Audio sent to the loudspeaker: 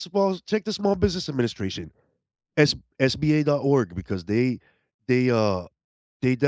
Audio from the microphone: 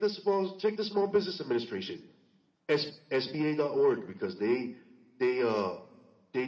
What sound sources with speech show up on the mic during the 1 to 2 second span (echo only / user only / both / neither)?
echo only